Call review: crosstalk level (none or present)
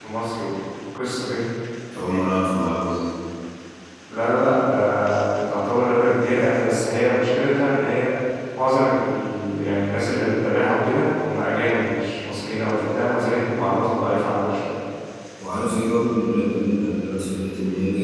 none